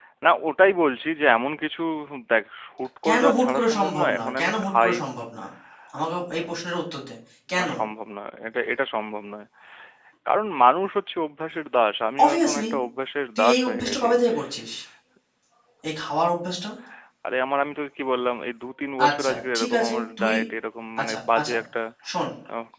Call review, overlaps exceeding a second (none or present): present